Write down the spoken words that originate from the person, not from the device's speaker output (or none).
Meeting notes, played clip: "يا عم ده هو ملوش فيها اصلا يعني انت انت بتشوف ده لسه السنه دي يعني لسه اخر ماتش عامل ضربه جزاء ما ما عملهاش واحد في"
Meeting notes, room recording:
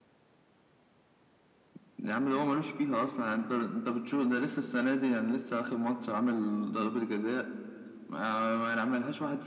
none